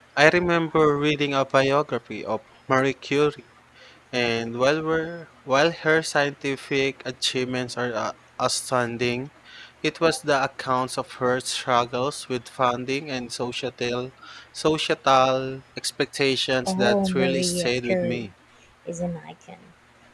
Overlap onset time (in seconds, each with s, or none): 16.7 s